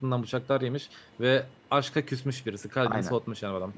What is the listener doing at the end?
taking over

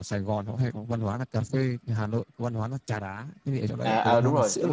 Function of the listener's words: taking over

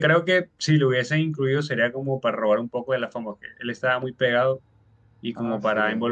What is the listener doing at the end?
listening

